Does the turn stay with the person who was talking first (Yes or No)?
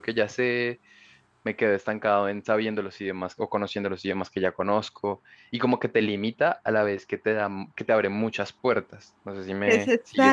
No